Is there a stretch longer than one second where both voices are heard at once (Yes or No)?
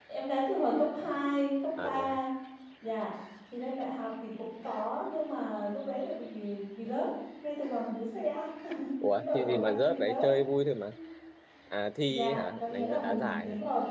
Yes